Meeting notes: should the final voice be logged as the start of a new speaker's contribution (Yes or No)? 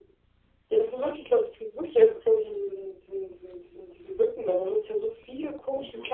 No